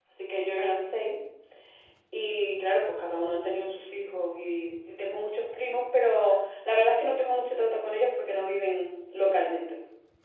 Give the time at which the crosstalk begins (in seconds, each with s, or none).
none